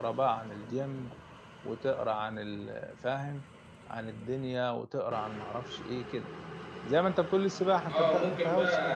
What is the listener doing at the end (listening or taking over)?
taking over